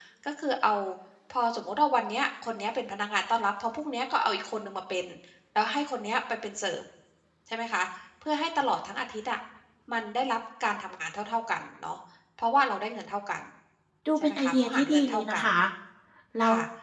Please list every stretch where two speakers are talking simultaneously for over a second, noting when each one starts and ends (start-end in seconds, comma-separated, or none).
14.2-15.4